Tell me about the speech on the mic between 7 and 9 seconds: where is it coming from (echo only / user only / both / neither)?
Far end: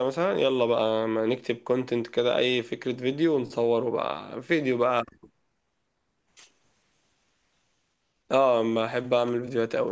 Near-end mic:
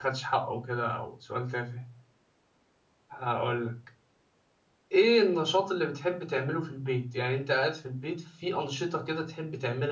user only